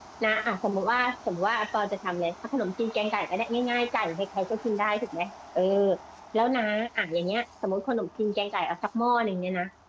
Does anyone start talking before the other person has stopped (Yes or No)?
No